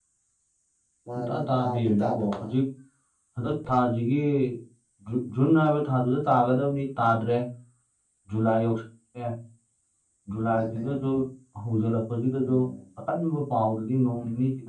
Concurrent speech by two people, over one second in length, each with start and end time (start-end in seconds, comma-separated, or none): 1.1-2.5